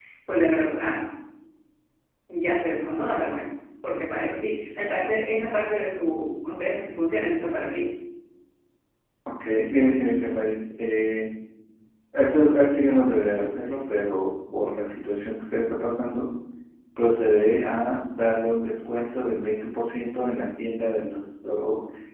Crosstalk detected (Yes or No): No